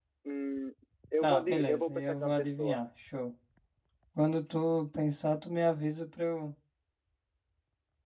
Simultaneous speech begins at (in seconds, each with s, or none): 1.2 s